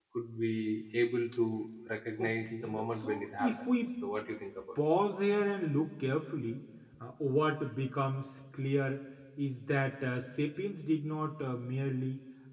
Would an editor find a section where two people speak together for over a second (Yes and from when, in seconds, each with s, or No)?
Yes, from 2.2 s